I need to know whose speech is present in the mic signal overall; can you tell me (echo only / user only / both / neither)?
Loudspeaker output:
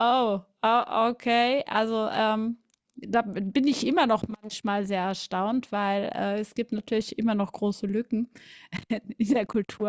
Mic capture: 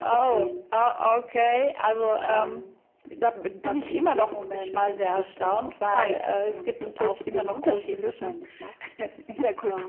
both